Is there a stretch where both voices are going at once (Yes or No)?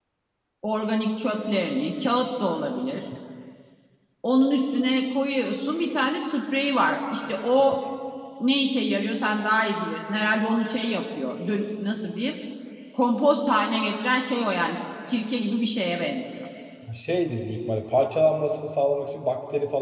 No